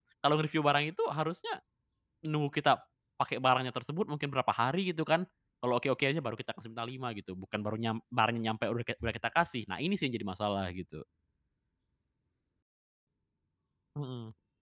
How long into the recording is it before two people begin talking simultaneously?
none

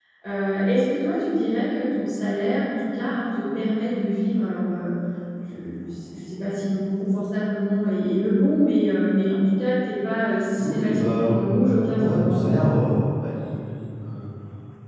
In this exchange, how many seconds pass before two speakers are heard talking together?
10.6 s

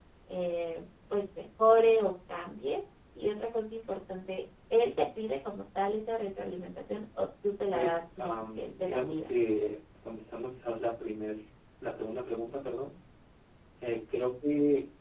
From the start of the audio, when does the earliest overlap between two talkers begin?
7.7 s

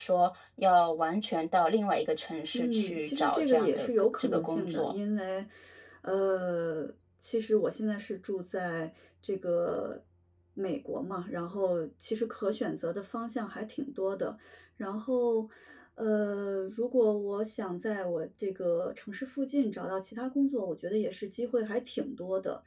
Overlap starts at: 2.5 s

